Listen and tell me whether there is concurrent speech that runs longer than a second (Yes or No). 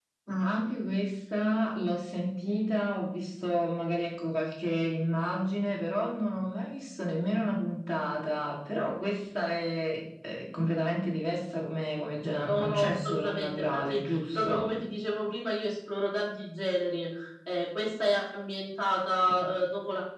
Yes